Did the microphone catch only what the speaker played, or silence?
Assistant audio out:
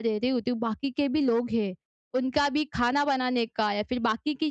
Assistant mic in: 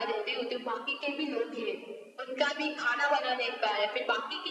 Yes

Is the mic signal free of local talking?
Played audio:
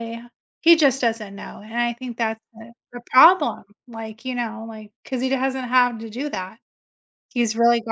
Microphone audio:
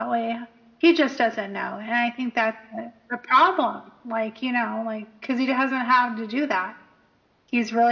Yes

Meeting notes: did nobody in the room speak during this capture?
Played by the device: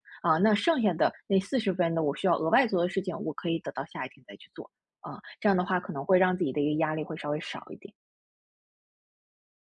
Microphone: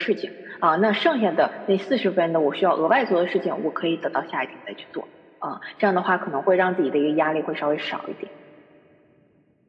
Yes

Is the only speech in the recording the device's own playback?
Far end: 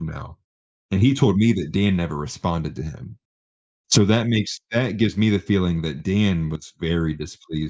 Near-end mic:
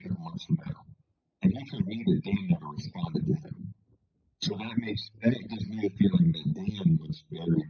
Yes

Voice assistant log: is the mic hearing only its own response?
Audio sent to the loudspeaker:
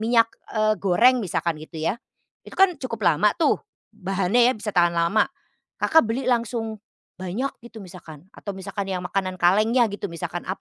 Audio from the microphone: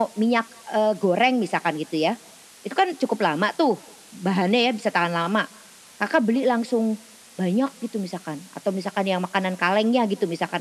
Yes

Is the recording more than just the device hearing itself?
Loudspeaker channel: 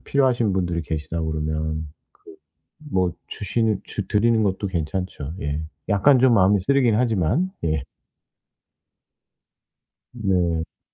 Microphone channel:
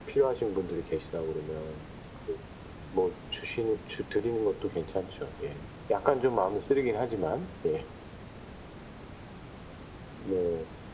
No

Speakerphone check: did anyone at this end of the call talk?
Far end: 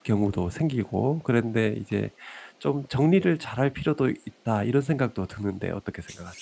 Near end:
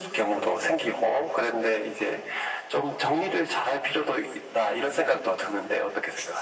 No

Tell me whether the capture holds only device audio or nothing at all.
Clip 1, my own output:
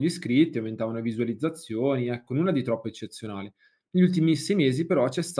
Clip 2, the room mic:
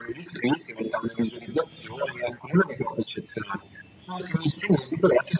Yes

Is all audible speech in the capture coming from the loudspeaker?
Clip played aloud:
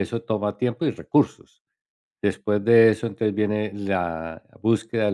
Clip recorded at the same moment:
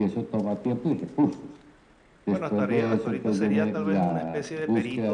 No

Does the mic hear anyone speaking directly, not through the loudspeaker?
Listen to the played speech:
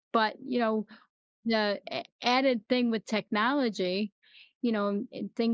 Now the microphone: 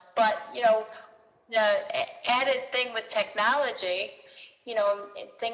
No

